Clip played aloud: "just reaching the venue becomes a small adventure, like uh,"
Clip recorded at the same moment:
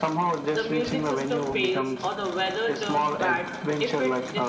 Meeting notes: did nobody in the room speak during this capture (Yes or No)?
No